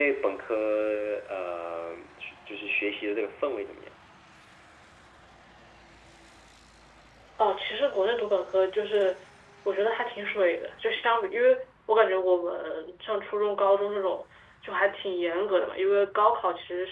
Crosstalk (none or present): none